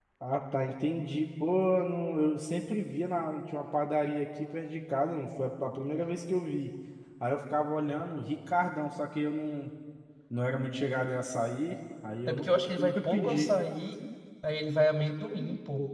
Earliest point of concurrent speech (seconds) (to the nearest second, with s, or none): 12 s